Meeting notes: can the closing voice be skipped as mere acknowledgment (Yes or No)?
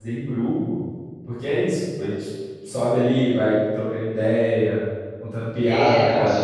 No